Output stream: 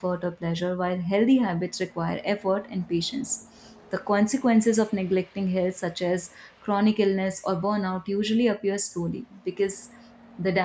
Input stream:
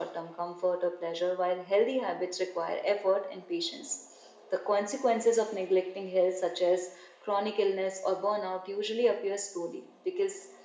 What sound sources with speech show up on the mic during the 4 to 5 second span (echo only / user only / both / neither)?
echo only